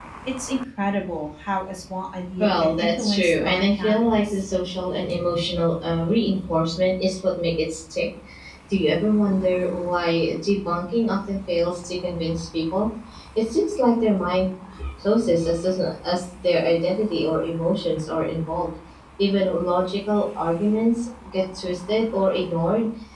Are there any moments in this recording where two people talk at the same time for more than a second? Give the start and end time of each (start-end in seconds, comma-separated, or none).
2.4-4.4